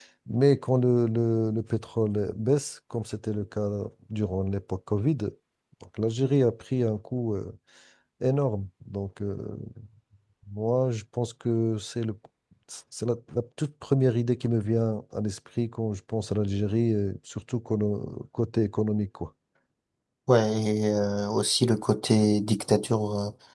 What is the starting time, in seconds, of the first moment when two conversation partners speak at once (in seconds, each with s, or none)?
none